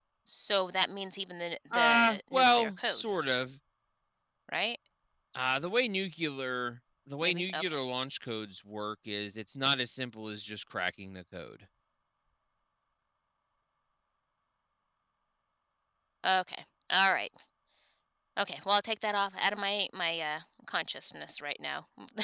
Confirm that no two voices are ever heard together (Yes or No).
No